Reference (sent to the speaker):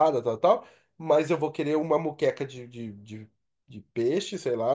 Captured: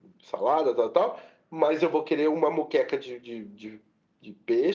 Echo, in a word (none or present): present